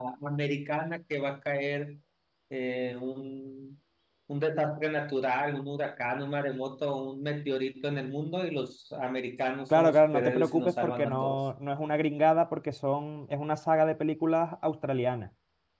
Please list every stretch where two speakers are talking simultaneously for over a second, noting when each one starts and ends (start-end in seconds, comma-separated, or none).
9.8-11.4